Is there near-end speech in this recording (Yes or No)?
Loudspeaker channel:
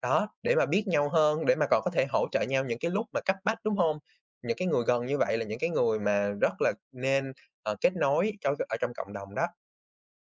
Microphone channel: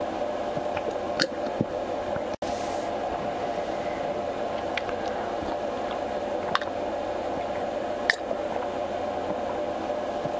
No